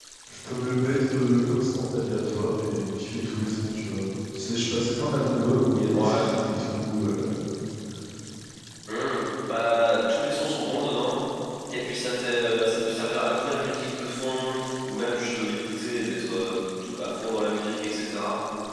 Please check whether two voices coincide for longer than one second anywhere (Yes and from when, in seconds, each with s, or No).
No